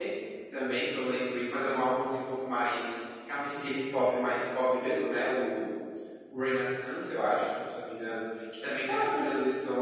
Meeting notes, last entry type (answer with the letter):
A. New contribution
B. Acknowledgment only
B